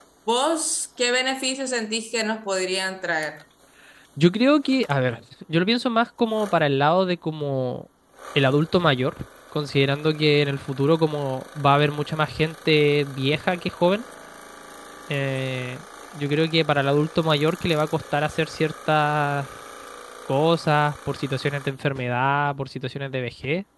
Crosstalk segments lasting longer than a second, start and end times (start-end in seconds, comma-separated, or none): none